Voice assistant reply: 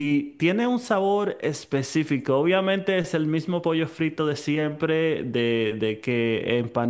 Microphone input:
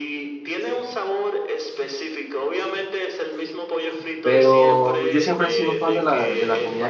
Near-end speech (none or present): present